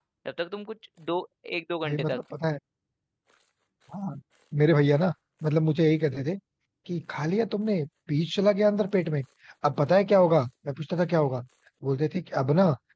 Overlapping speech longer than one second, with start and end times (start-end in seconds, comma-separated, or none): none